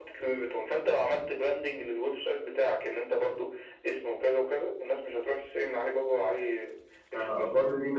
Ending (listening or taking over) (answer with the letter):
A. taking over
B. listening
A